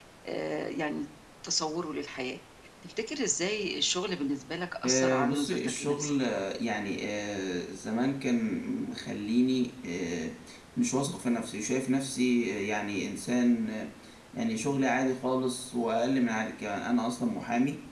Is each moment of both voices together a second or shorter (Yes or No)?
No